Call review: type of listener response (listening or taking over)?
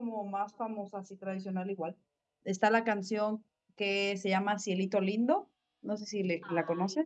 taking over